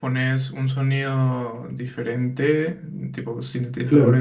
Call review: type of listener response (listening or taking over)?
listening